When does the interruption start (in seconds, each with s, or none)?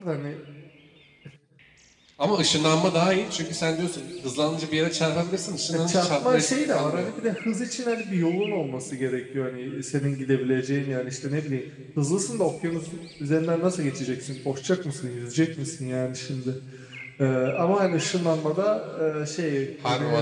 5.7 s